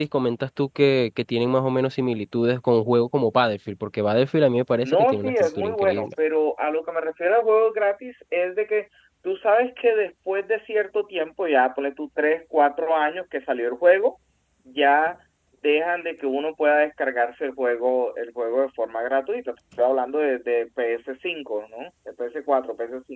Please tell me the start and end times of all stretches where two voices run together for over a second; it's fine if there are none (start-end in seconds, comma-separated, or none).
4.8-6.1